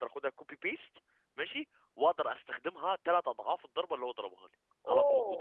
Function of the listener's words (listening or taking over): taking over